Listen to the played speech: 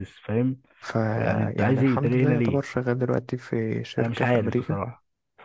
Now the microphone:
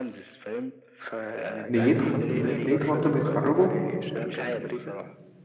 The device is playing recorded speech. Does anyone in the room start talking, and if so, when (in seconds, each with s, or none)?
1.7 s